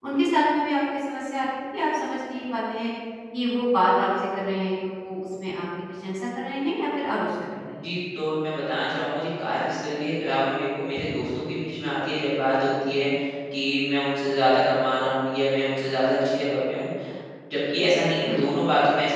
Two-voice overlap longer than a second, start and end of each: none

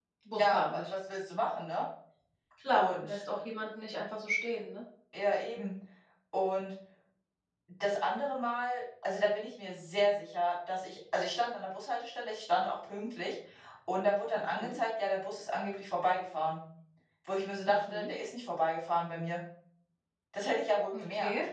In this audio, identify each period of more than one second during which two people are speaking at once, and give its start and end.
none

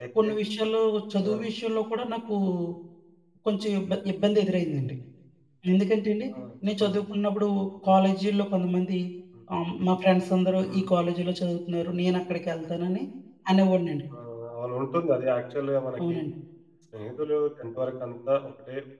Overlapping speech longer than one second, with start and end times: none

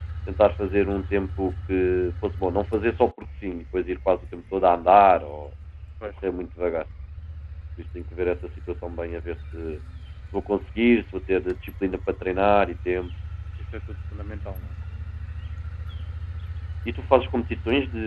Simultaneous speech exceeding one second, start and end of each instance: none

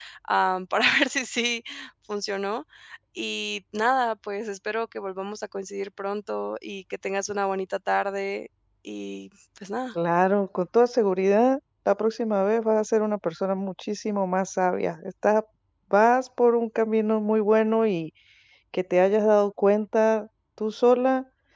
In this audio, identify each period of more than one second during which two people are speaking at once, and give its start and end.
none

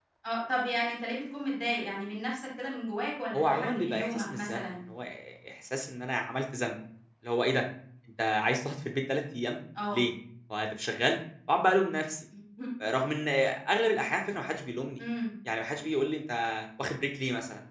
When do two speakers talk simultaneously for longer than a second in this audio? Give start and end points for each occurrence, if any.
3.3-4.7

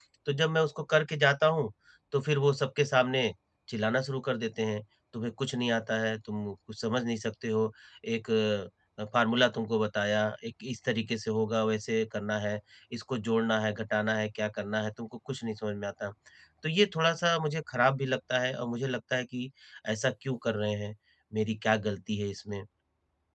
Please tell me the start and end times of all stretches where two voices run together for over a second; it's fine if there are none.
none

